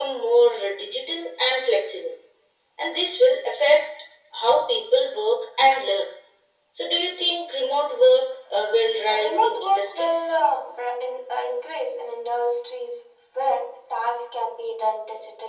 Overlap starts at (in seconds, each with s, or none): 8.8 s